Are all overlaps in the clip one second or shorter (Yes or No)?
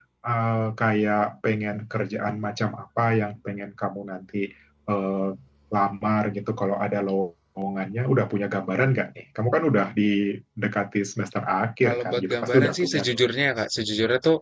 No